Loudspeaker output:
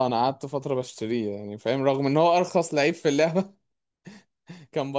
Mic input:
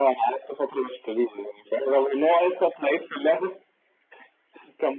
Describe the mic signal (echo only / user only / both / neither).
echo only